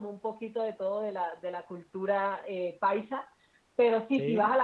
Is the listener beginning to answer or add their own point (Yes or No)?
No